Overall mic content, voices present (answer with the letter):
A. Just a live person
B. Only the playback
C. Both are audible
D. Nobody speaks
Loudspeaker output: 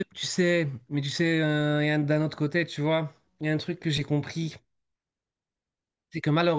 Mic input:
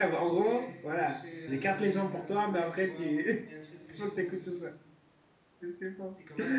C